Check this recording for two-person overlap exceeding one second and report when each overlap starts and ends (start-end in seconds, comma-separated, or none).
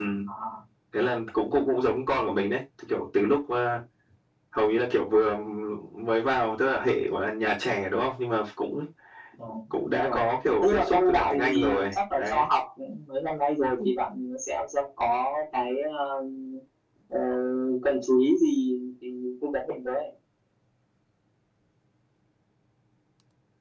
10.6-12.5